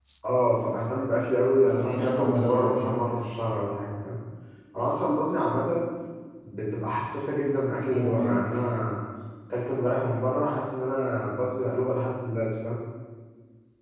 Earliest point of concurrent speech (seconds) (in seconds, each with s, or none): 1.6 s